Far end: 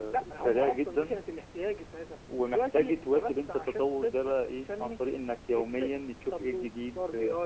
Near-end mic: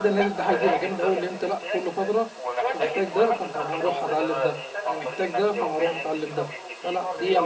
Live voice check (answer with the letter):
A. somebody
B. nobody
A